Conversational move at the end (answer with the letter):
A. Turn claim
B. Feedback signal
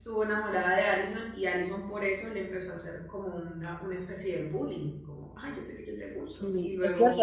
A